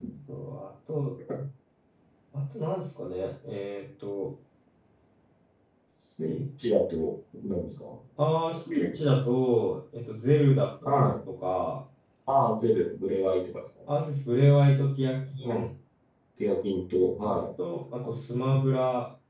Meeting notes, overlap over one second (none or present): none